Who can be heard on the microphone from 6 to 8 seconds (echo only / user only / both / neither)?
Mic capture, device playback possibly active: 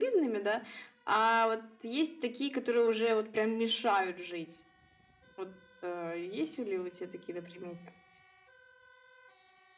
echo only